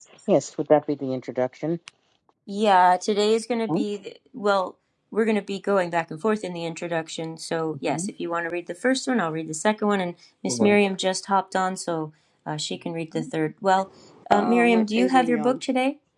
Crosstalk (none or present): present